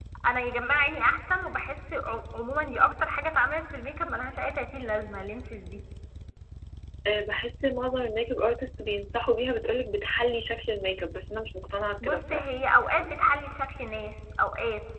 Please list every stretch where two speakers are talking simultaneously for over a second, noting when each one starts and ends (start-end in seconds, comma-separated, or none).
none